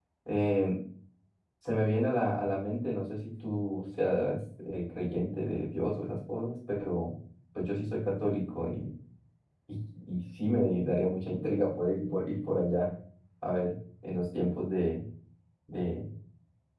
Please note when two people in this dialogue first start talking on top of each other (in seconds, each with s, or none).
none